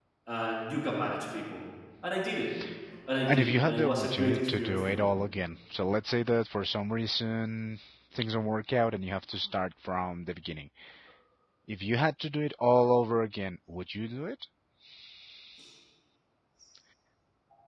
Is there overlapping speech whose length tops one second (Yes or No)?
Yes